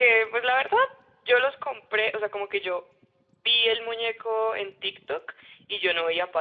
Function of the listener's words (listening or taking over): listening